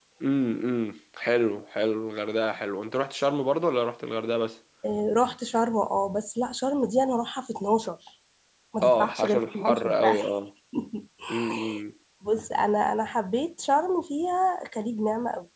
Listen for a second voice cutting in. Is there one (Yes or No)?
Yes